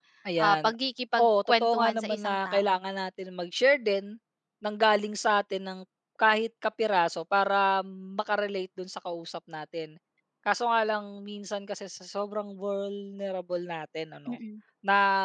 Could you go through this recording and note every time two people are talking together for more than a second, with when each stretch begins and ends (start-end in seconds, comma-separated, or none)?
1.2-2.6